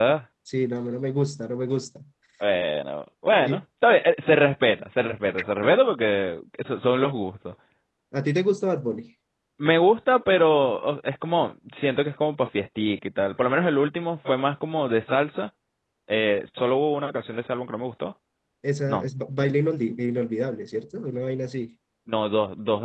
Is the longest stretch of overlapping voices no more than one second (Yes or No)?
Yes